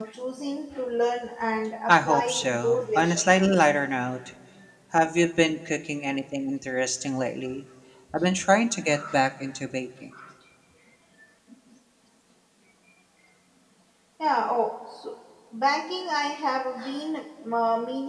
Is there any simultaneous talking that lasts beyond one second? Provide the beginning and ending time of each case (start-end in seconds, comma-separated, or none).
1.9-3.2